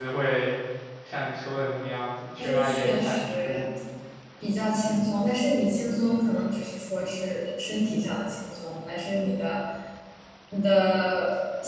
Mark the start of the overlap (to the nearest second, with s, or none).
2 s